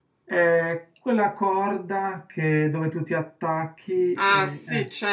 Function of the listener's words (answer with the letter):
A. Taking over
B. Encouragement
A